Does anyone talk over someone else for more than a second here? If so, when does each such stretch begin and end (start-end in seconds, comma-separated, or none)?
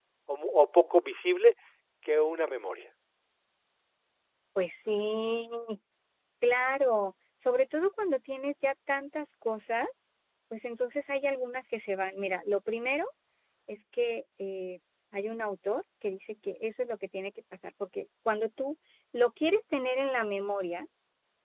none